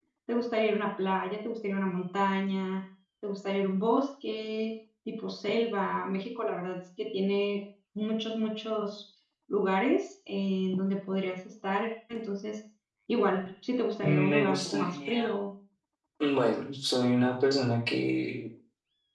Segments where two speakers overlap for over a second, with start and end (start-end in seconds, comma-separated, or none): 14.0-15.3